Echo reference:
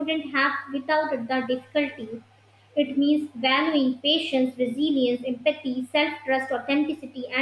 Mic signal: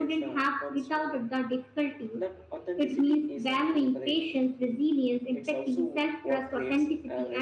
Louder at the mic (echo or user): echo